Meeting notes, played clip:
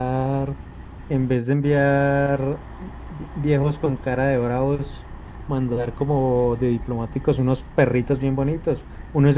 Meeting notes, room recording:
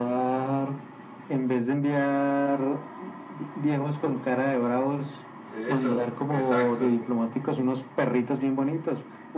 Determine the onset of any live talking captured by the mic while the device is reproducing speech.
5 s

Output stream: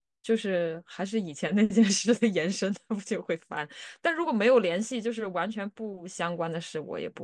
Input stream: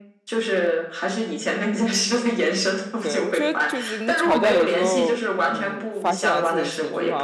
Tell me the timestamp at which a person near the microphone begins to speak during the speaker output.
3 s

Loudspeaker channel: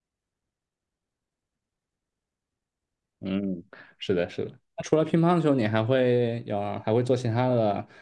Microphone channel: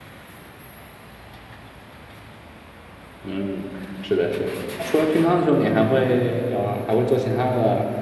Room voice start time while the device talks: none

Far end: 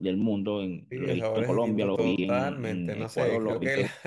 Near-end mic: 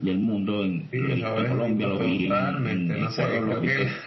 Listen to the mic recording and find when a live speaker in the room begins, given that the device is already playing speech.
none

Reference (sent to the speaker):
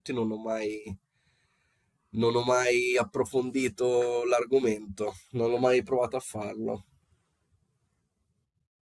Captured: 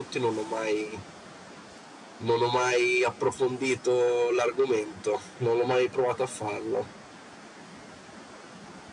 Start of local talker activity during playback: none

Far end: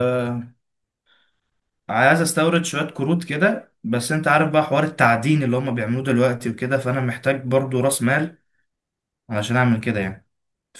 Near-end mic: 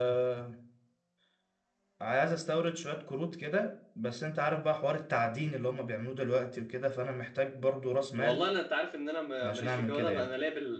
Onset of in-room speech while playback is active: 8 s

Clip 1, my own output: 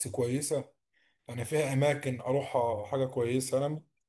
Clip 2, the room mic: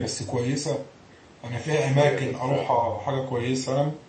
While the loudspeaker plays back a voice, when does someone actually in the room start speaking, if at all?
2 s

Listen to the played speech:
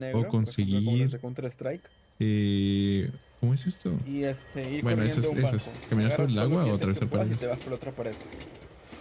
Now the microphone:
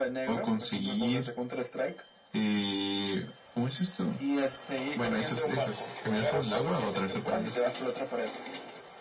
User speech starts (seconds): none

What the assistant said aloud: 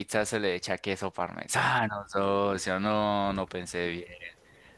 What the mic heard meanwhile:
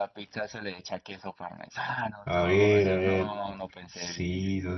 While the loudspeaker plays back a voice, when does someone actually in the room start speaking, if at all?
2 s

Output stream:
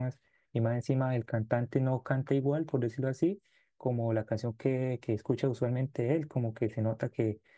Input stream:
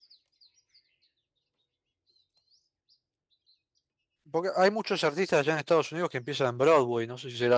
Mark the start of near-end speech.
4 s

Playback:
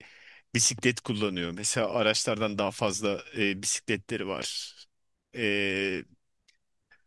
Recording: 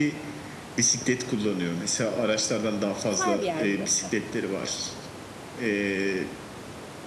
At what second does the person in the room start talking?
3 s

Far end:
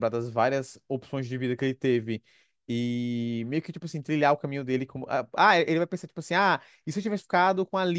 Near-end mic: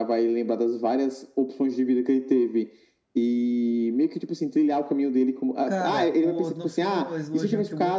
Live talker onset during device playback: 6 s

